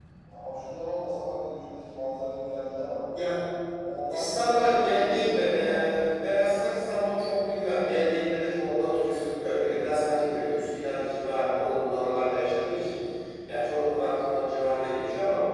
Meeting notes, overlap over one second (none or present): present